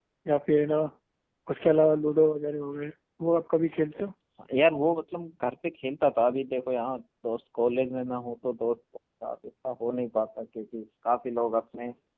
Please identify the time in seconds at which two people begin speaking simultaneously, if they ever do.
none

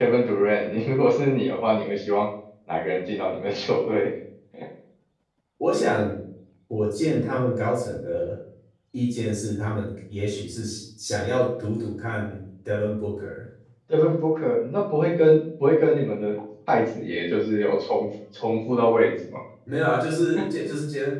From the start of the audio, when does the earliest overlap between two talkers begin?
none

